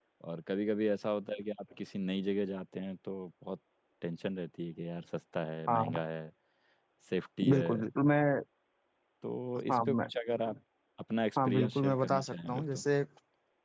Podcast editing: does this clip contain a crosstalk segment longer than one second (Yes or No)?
Yes